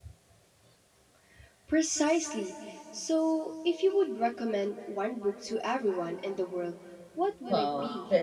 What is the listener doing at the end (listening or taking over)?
taking over